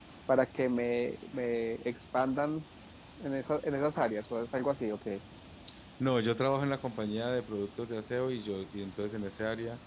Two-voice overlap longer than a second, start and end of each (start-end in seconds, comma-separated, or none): none